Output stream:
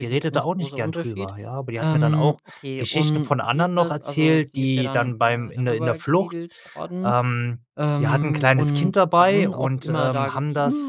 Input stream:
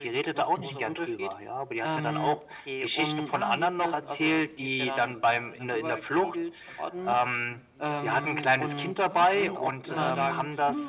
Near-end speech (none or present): present